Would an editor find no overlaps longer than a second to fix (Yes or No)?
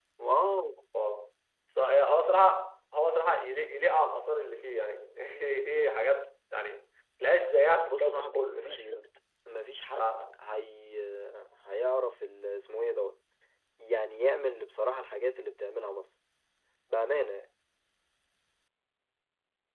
No